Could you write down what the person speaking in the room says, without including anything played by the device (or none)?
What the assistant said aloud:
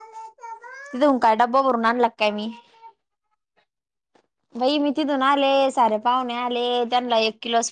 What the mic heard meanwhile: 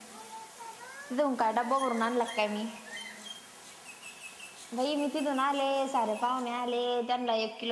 none